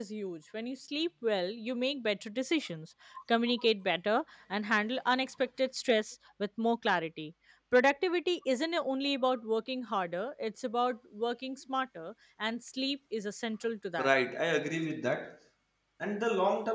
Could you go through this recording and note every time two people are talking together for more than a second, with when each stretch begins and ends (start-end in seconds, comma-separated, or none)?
none